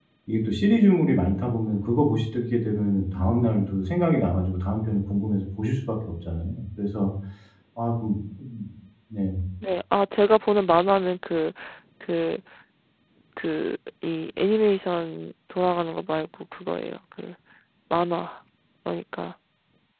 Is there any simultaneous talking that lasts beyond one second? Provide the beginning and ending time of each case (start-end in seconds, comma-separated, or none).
none